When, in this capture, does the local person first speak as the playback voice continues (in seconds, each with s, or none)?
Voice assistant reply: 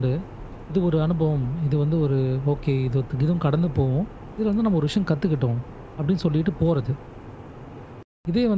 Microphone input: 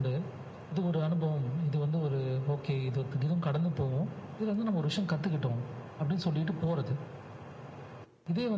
none